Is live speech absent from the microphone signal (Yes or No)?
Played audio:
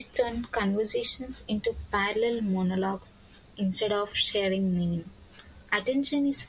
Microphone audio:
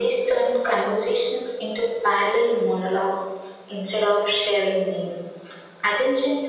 Yes